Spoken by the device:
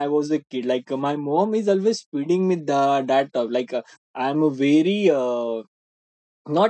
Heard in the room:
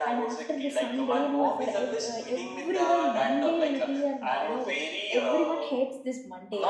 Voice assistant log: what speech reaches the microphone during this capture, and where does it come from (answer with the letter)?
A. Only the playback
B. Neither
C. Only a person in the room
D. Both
D